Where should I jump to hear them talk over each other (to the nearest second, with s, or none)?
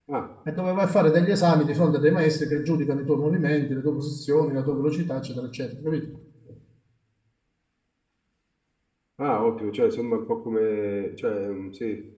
none